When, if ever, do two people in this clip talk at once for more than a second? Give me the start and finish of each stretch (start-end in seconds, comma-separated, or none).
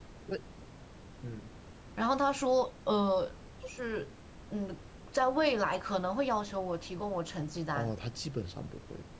none